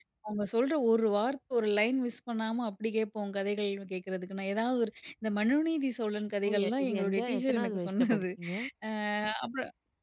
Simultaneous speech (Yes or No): Yes